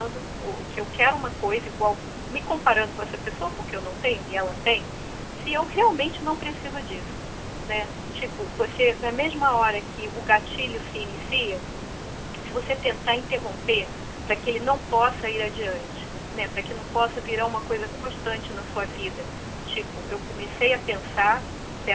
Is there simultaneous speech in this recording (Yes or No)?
No